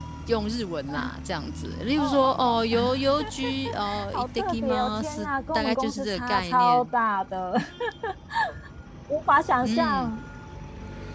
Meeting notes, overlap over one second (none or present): present